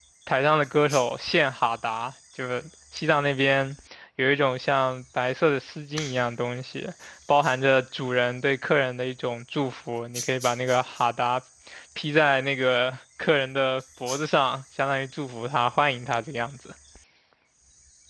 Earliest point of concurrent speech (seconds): none

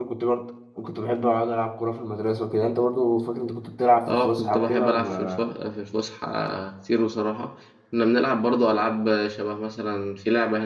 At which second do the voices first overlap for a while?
4.1 s

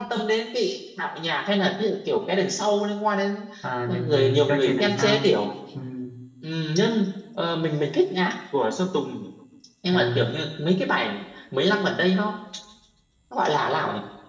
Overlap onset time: 3.9 s

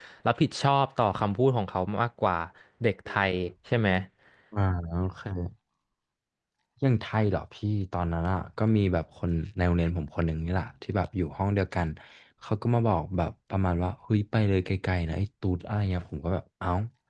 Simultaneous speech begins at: none

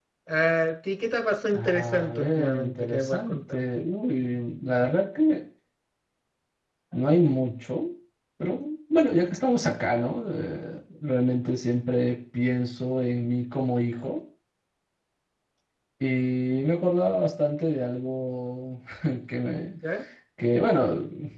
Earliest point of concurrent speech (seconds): 1.5 s

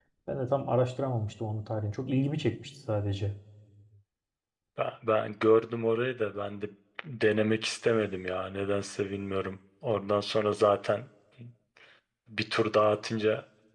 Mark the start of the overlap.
none

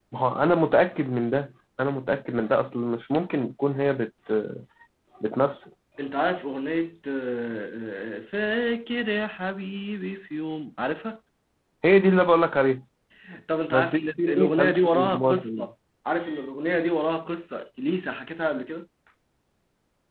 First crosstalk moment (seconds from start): 13.7 s

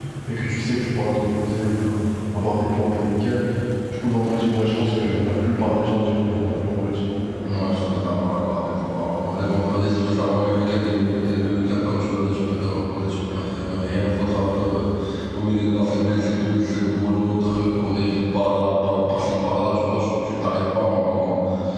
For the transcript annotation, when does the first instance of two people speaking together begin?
none

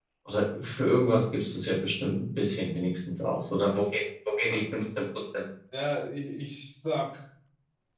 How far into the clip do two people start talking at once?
none

